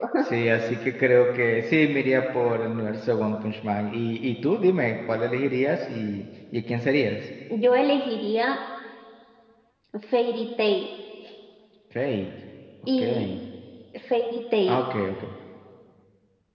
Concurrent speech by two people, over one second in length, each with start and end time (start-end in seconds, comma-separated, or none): none